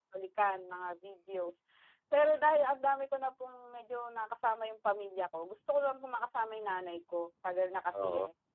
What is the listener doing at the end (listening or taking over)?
listening